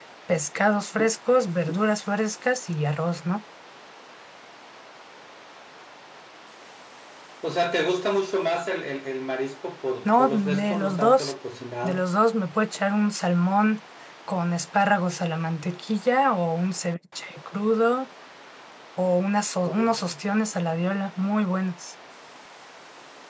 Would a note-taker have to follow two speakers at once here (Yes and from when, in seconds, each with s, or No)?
Yes, from 10.0 s